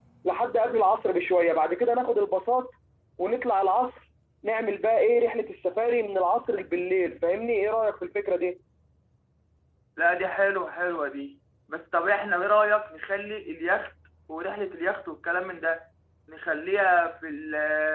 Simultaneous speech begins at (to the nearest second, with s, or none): none